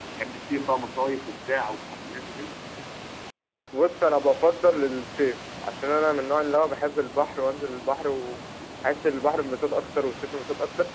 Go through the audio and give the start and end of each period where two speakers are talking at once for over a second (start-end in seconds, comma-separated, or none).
none